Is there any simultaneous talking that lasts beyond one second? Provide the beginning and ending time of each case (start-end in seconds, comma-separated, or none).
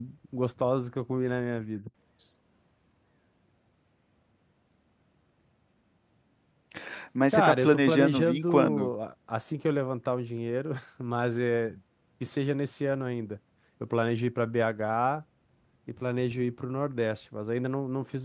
7.3-8.9